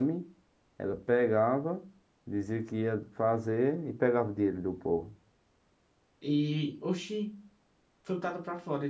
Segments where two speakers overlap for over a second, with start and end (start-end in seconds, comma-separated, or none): none